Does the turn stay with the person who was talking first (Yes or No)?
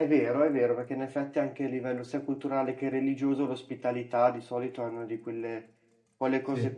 Yes